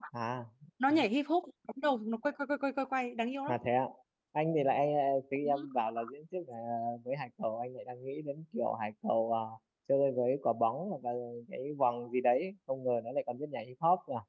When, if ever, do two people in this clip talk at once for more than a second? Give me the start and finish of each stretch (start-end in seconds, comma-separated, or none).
none